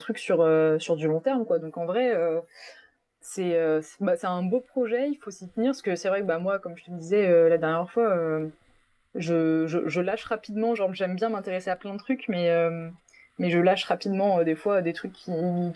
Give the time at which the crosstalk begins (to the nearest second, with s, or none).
none